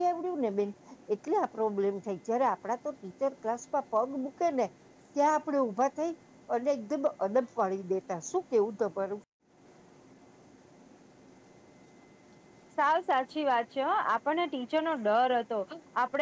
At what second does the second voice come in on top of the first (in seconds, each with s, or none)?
none